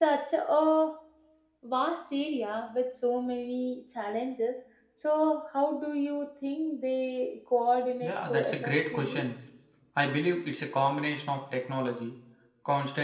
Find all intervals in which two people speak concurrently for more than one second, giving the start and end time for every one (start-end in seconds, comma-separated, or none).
8.0-9.2